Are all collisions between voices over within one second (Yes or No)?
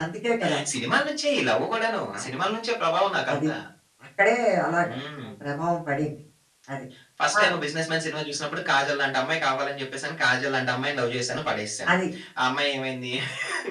Yes